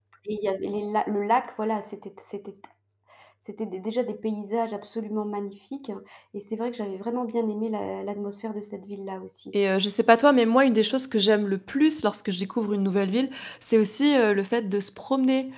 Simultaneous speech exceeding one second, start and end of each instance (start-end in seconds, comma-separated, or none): none